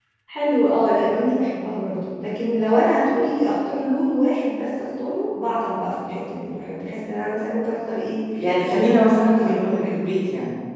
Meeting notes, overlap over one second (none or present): present